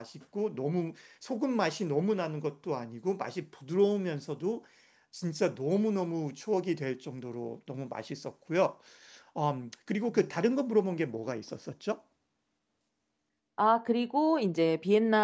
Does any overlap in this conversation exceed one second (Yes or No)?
No